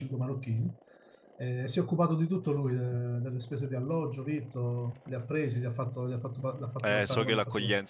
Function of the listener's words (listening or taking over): taking over